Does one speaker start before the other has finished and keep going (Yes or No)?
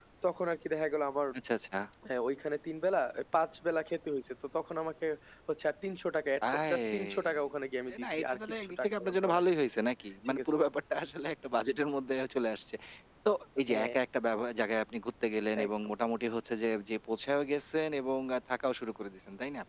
Yes